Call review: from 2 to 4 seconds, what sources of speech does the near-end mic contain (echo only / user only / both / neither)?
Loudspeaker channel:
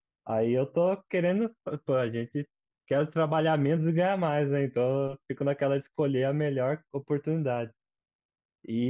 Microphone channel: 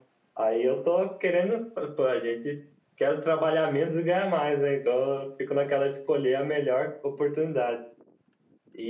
echo only